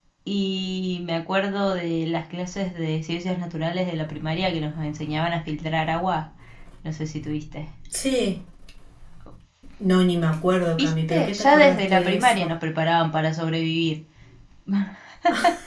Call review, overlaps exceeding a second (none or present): present